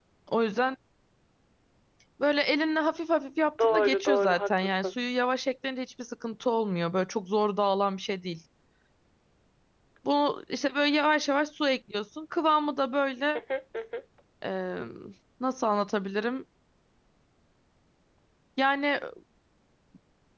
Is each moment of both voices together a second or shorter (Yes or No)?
No